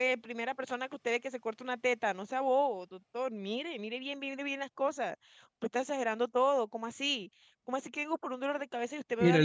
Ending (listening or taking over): taking over